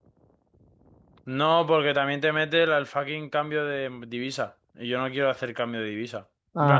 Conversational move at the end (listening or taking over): listening